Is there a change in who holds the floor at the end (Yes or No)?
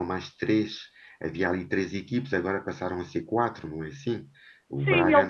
Yes